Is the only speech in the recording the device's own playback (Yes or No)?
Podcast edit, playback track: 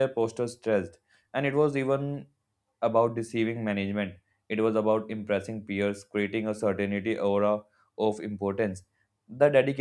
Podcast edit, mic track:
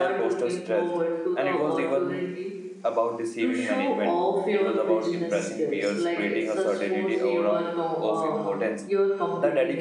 No